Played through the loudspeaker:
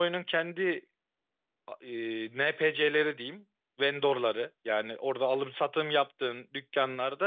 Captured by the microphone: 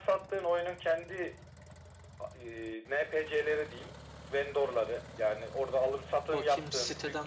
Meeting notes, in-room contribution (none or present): present